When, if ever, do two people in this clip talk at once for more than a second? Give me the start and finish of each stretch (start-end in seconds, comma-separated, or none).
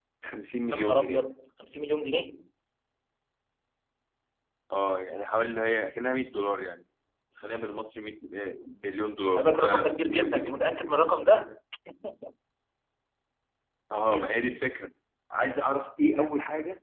9.4-10.6